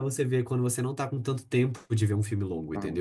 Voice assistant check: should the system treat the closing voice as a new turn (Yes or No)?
Yes